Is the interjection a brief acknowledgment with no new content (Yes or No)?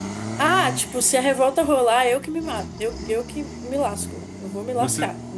No